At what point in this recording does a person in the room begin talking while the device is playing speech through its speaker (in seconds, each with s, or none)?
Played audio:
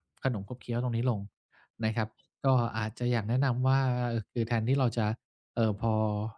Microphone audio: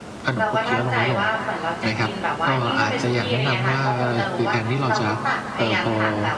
0.4 s